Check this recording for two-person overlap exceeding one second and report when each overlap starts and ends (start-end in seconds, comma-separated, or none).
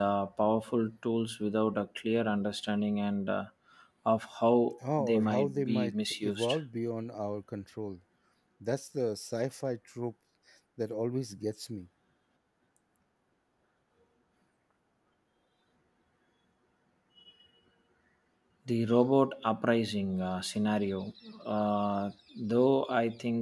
5.0-6.5